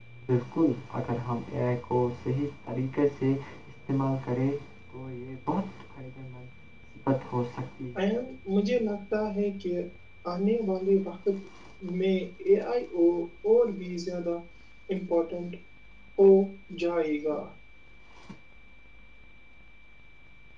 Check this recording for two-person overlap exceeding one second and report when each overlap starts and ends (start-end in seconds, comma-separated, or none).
none